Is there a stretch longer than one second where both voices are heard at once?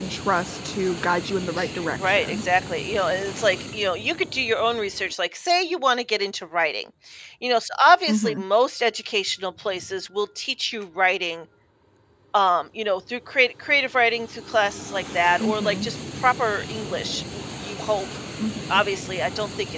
No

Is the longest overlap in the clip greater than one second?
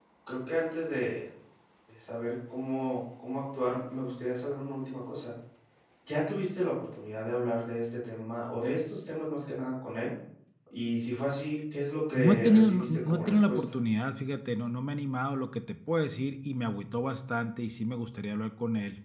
Yes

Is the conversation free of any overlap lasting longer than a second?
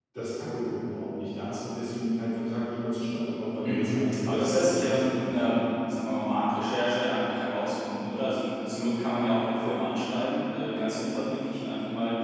No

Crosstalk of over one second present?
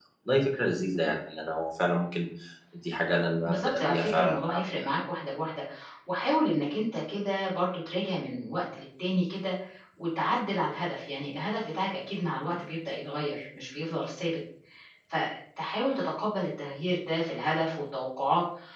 Yes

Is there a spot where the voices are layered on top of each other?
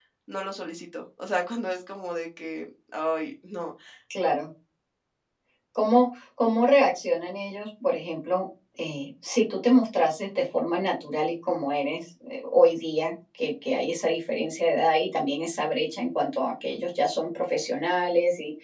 No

